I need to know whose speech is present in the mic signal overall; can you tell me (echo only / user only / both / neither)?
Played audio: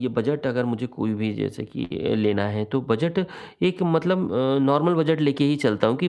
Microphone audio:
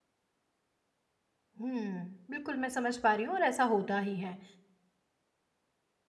user only